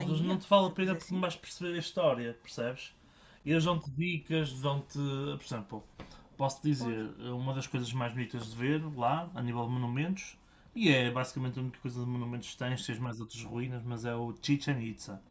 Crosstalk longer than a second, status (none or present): present